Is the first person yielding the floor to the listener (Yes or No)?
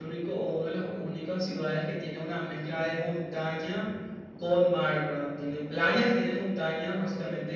No